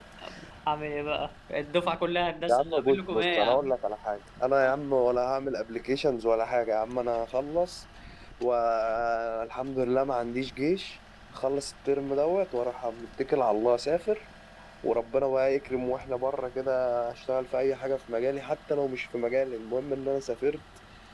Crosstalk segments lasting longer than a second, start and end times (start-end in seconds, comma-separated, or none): 2.5-3.7